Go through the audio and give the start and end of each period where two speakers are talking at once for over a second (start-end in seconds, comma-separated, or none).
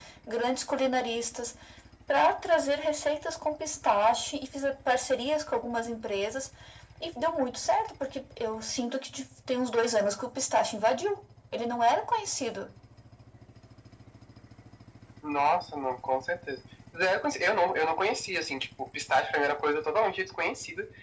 none